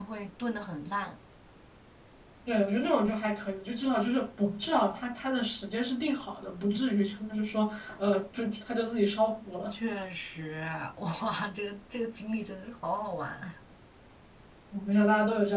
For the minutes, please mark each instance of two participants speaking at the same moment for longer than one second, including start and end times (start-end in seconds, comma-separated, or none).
none